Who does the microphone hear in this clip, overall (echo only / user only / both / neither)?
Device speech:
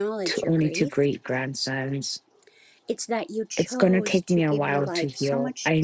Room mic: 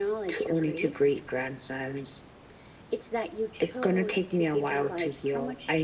echo only